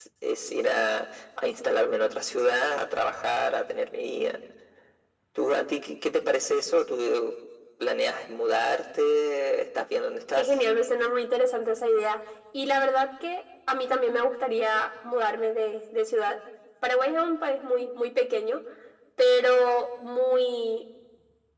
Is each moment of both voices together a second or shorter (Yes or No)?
Yes